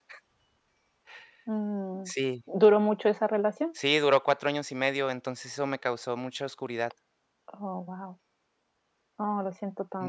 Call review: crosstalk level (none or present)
none